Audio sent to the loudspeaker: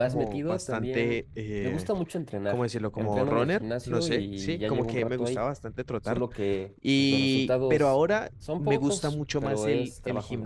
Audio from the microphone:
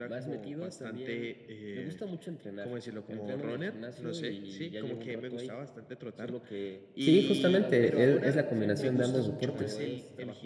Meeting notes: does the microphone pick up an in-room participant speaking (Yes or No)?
Yes